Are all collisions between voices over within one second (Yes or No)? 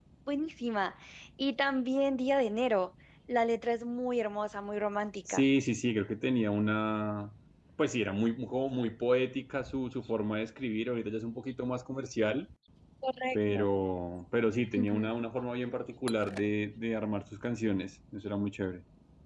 Yes